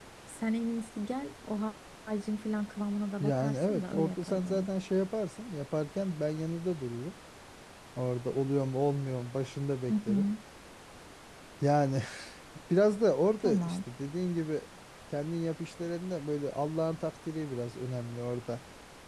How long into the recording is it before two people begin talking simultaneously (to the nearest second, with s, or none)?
3 s